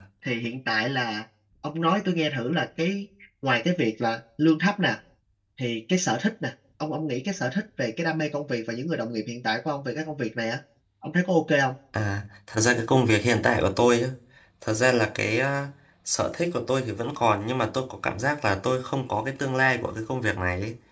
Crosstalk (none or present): none